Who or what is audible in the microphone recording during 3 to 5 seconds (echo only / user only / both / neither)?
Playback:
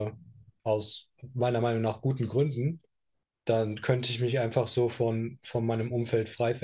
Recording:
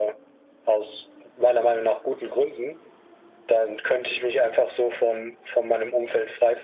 echo only